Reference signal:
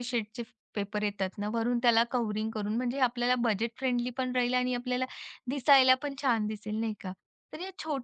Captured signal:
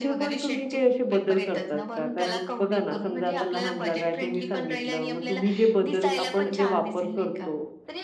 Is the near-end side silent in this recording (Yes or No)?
No